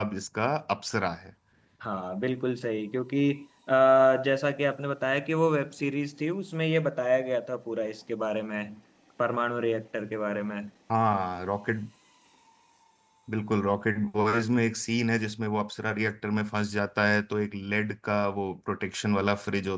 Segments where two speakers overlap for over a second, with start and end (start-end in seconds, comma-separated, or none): none